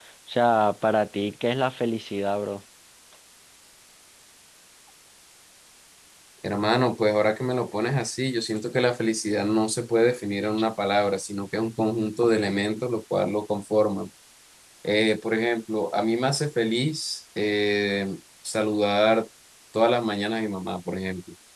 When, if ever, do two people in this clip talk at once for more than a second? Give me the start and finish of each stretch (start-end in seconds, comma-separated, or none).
none